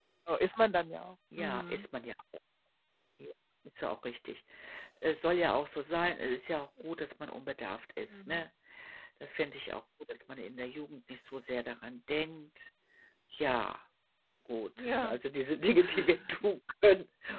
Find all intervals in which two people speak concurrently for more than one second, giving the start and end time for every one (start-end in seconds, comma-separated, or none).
none